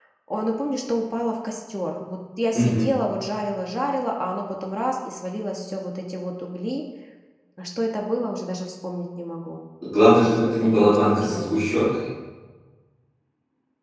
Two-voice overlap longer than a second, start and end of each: 10.2-11.6

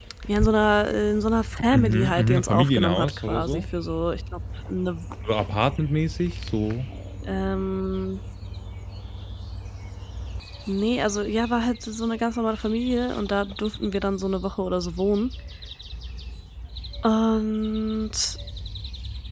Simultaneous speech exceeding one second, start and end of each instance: 1.7-3.6

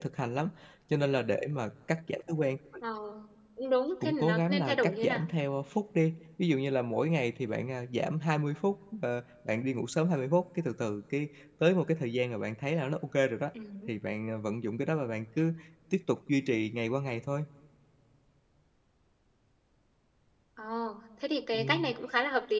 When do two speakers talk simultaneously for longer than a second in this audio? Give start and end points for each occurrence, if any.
4.0-5.2

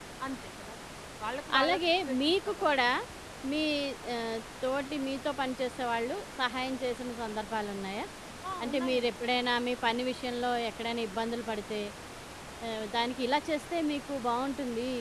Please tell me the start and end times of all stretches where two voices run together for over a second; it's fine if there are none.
1.6-2.9

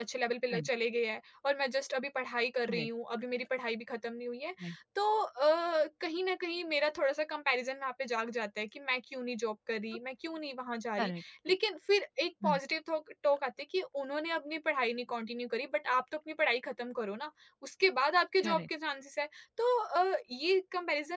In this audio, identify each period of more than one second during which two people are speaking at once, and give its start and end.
none

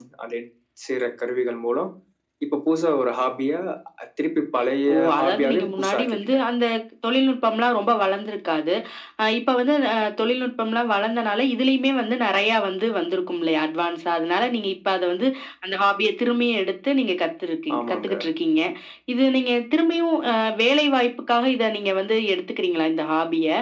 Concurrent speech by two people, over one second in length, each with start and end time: 4.9-6.4

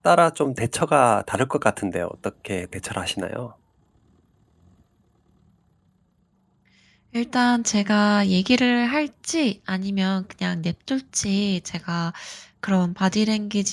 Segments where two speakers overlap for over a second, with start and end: none

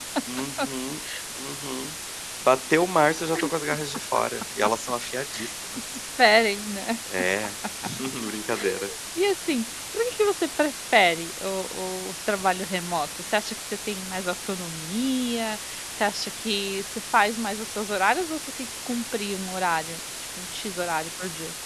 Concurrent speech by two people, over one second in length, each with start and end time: none

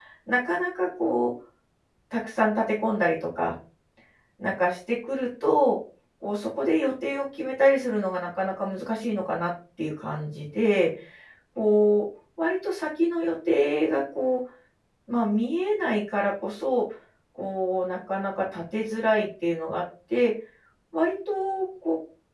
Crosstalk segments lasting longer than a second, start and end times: none

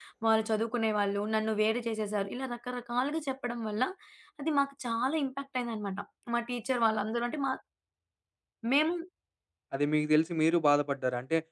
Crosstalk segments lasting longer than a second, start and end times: none

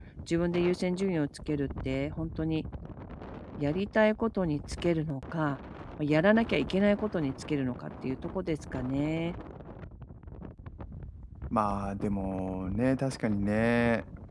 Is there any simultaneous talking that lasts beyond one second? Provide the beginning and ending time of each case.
none

